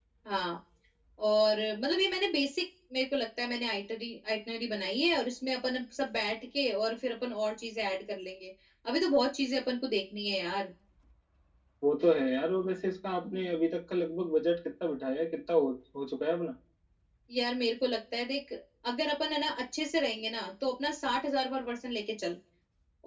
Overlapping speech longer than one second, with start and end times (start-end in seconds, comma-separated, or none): none